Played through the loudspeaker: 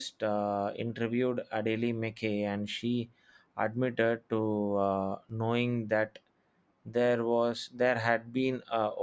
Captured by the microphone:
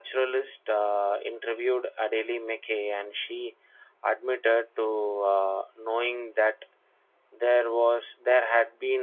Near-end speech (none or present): none